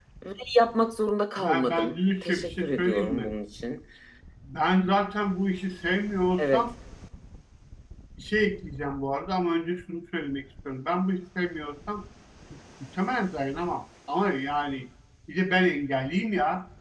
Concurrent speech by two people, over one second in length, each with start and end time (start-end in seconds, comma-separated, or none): 1.4-3.3